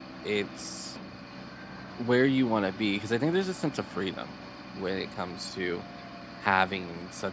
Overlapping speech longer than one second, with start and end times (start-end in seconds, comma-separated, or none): none